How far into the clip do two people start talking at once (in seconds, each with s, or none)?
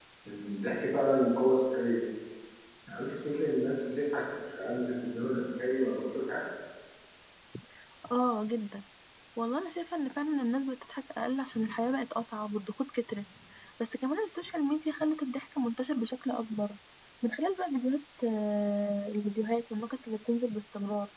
none